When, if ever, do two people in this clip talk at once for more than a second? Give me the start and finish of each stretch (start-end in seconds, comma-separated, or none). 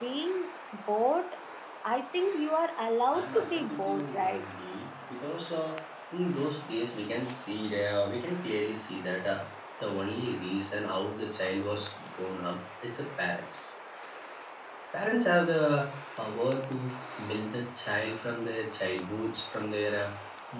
3.1-4.4